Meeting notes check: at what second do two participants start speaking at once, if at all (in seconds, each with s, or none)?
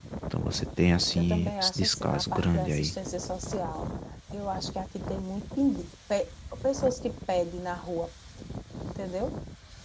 1.2 s